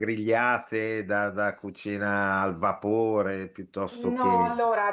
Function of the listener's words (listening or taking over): taking over